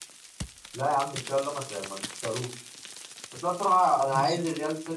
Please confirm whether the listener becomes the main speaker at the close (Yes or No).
No